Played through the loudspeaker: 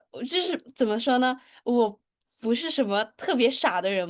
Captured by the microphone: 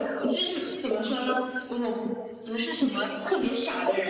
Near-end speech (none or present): none